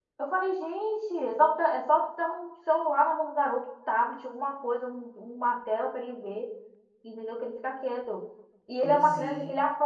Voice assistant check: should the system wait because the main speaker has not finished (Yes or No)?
Yes